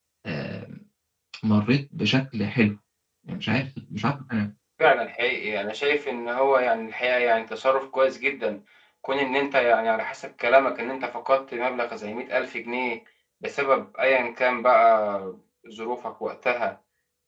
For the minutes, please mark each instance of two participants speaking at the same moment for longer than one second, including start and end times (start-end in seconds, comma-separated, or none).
none